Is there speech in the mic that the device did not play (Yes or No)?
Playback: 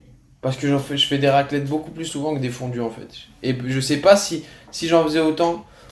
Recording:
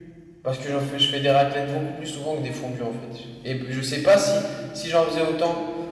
No